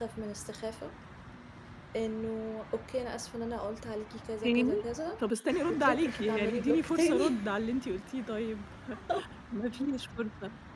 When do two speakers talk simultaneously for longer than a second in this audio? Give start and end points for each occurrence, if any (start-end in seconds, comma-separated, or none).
5.7-7.4